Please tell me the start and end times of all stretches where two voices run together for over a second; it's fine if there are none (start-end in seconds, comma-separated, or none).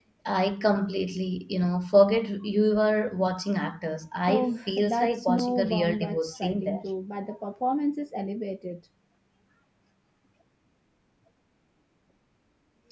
4.3-6.8